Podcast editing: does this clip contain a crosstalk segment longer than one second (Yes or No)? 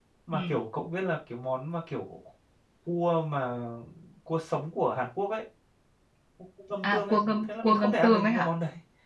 Yes